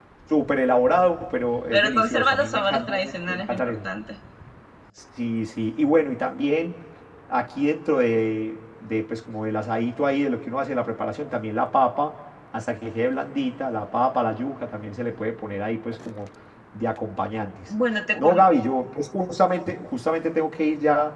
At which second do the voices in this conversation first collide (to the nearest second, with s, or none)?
2 s